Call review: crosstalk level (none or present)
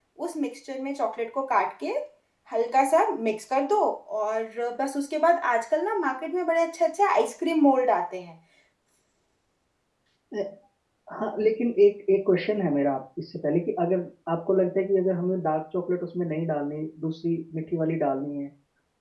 none